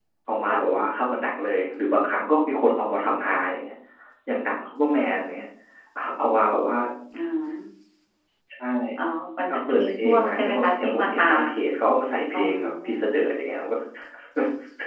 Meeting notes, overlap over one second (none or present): present